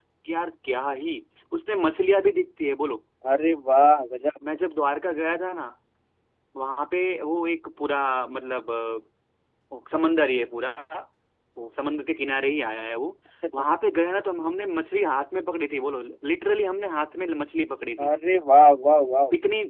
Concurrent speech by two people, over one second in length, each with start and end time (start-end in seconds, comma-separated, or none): none